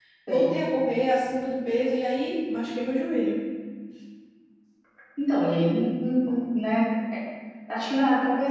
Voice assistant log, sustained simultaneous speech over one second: none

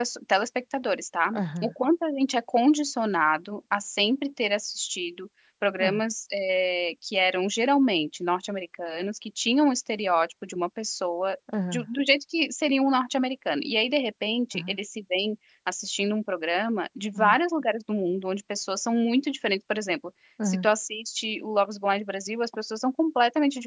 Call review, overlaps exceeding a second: none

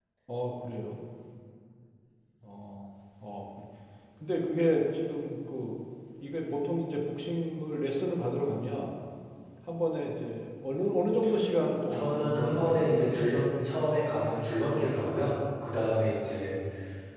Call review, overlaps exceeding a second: present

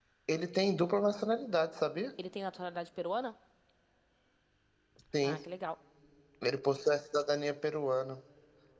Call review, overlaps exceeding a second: none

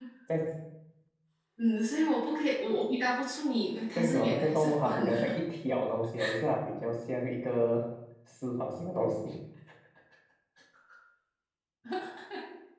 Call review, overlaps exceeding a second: present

